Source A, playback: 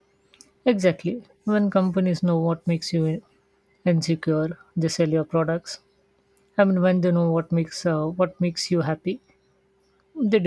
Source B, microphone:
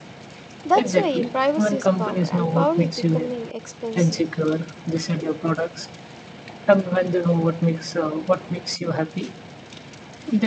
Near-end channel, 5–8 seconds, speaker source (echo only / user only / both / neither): echo only